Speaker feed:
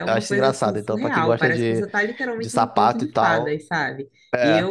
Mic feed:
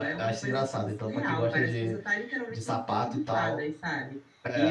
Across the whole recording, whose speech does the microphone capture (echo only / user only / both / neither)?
echo only